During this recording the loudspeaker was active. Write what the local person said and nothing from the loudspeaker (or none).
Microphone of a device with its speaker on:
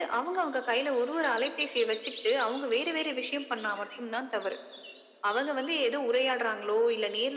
none